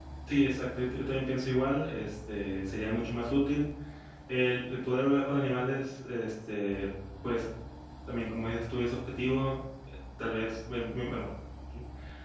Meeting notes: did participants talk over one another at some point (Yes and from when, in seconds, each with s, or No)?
No